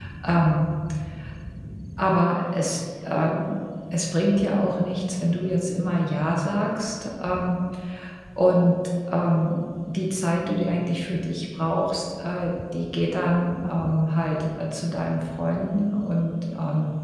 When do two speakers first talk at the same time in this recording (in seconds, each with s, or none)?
none